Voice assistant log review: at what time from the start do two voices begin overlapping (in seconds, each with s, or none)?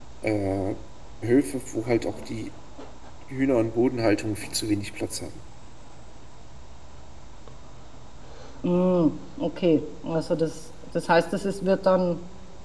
none